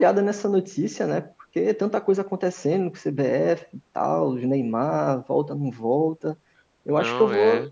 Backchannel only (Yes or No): Yes